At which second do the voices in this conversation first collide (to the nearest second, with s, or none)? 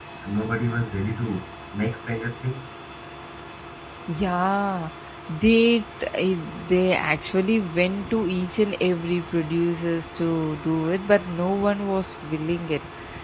none